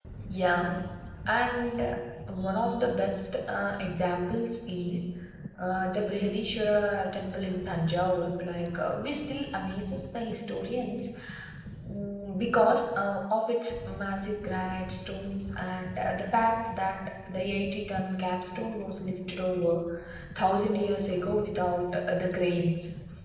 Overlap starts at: none

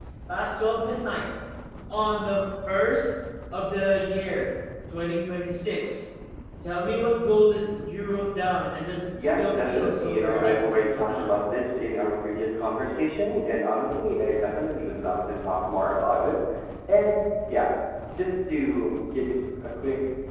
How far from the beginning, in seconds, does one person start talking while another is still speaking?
9.1 s

